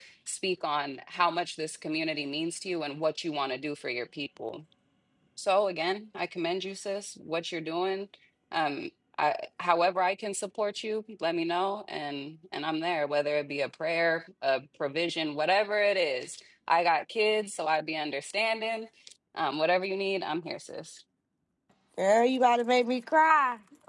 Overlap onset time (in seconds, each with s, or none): none